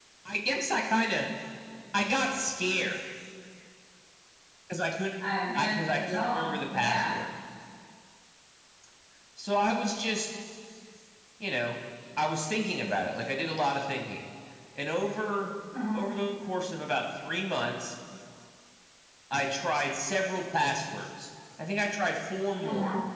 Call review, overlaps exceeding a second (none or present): present